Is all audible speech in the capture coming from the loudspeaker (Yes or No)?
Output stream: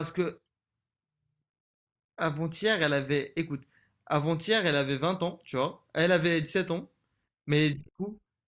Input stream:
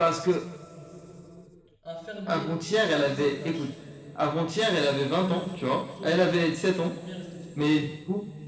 No